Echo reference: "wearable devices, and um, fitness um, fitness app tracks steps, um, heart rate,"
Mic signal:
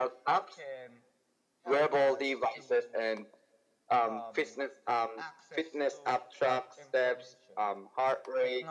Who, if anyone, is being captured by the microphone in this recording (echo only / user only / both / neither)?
both